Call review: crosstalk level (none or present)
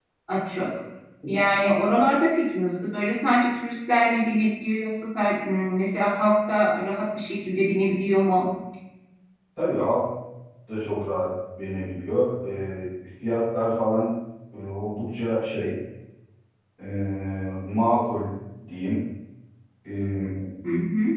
none